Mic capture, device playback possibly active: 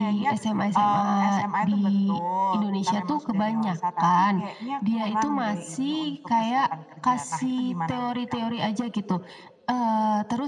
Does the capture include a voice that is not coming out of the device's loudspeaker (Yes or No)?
No